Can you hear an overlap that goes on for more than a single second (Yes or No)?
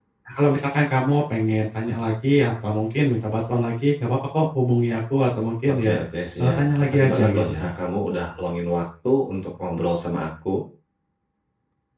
Yes